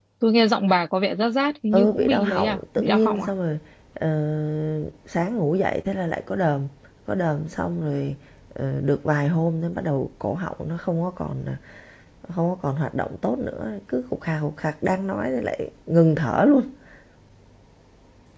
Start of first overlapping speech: 1.7 s

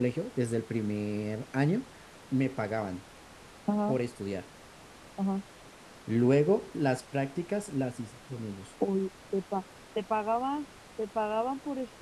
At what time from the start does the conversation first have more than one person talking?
none

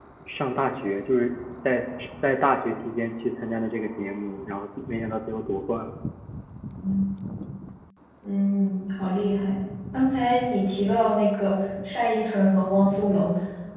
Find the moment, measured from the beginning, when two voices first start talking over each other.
none

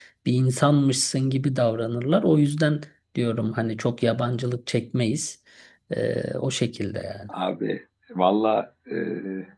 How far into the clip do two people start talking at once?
none

